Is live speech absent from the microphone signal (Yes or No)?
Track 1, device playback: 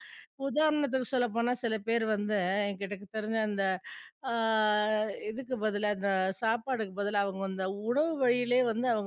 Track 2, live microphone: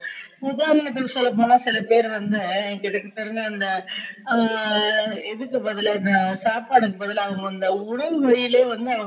Yes